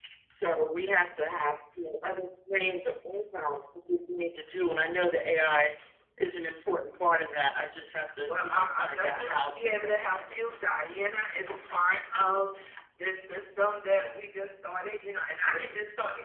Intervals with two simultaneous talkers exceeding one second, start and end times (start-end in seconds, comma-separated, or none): 8.3-10.4